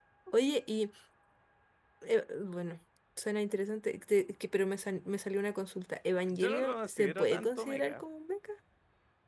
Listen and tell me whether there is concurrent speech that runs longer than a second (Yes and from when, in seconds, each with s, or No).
Yes, from 6.3 s